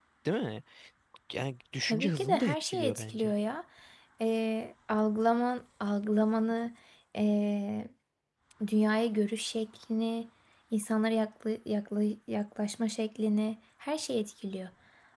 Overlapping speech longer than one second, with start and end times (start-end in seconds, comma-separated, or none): 1.8-3.3